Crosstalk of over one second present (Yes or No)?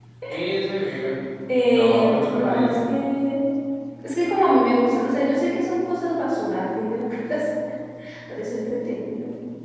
Yes